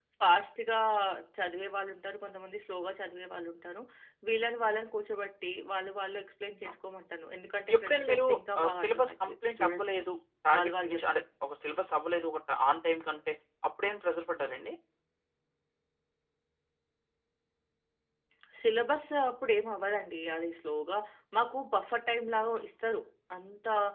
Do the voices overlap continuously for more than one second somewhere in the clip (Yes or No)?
Yes